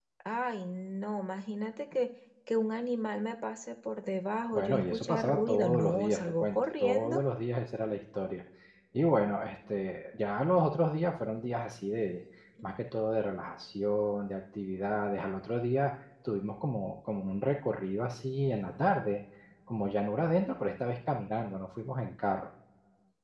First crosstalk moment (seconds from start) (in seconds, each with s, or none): 4.5 s